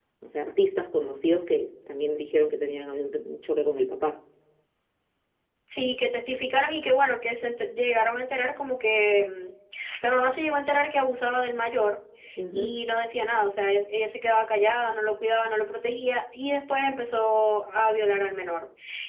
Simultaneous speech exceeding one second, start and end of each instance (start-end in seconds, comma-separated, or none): none